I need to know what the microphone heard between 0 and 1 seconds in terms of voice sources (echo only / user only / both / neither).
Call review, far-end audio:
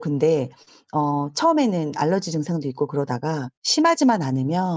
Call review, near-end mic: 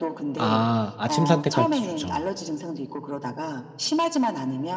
both